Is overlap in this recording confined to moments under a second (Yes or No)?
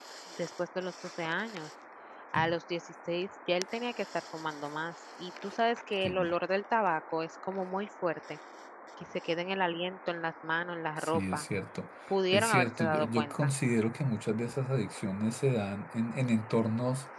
No